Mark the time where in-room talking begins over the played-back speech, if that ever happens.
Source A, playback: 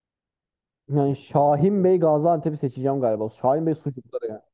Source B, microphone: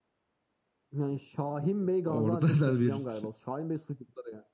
2 s

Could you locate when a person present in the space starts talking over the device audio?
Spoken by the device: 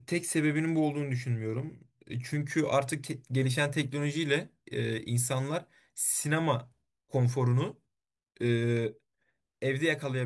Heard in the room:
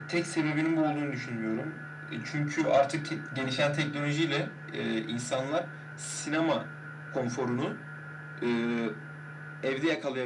none

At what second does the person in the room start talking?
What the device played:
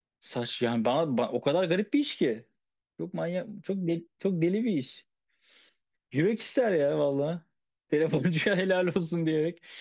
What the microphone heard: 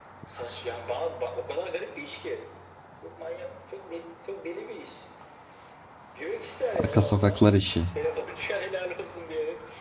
7 s

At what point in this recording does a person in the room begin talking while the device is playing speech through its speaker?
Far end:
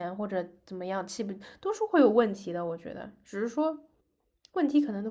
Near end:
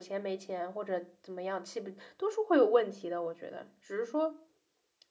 none

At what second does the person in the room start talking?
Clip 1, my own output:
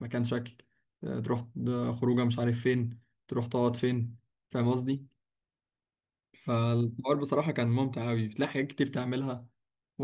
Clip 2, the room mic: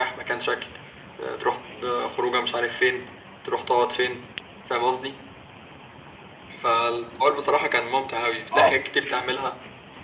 9 s

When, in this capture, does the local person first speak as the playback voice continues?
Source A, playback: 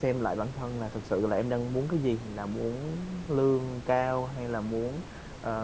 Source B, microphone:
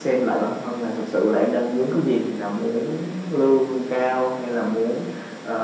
none

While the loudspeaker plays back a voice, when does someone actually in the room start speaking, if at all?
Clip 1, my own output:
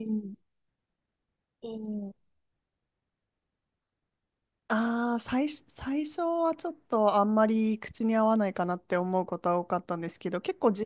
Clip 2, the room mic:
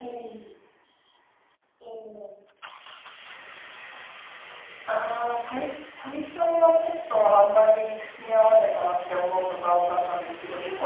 none

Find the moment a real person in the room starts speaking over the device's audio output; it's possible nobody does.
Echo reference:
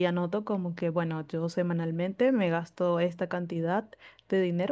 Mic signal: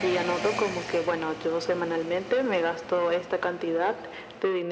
none

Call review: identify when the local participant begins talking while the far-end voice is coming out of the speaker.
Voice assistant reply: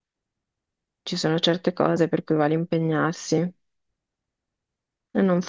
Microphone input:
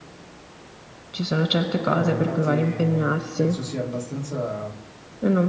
2 s

